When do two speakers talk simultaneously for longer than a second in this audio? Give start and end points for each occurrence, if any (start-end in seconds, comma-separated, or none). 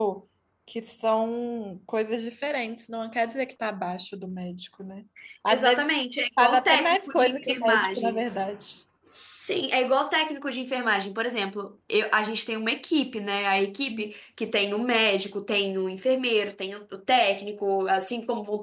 6.4-8.2